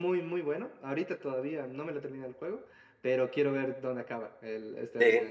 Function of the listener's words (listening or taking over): taking over